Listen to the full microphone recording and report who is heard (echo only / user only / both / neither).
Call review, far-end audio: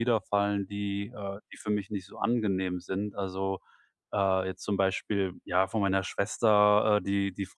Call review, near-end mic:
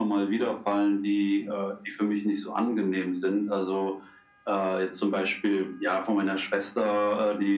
echo only